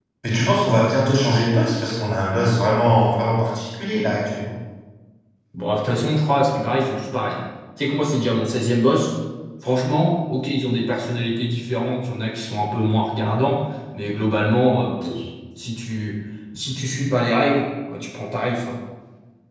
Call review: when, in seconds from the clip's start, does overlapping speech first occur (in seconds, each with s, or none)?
none